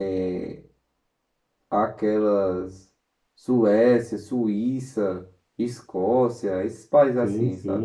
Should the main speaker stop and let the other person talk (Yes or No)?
Yes